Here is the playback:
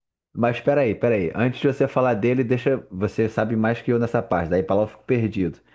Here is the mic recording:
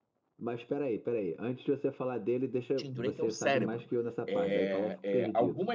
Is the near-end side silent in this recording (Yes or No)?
No